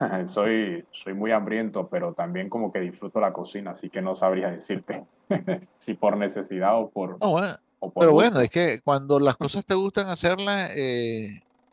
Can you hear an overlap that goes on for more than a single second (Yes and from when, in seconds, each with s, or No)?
No